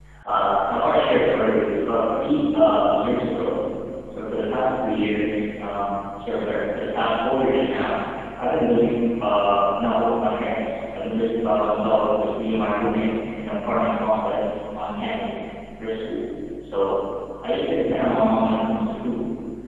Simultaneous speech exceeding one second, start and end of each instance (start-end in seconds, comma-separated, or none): none